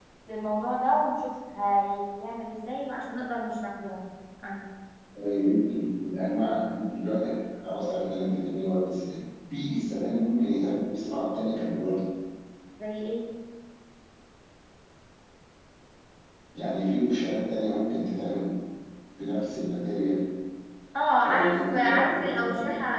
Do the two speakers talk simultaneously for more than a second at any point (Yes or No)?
Yes